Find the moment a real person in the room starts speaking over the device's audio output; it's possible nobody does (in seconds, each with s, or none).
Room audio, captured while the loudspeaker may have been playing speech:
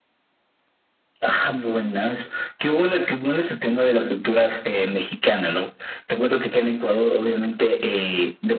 none